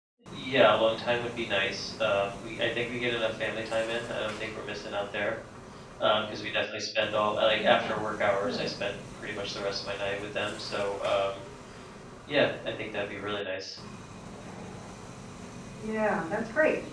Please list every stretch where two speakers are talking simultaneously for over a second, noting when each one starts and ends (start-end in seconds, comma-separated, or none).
none